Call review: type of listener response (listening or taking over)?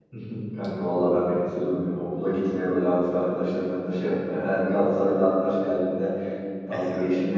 listening